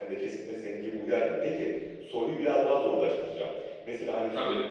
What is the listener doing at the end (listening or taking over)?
listening